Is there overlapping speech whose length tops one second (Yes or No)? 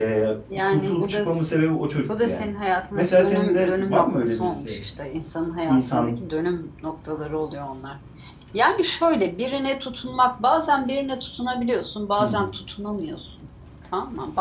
Yes